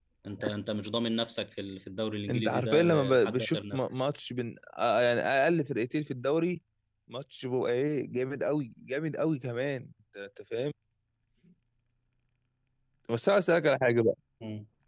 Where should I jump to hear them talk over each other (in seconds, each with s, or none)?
2.3 s